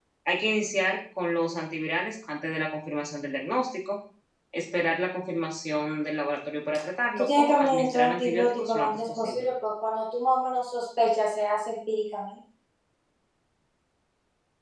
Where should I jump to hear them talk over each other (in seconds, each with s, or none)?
7.2 s